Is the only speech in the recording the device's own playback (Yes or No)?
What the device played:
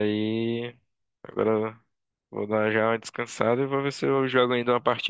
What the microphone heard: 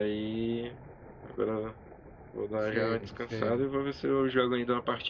No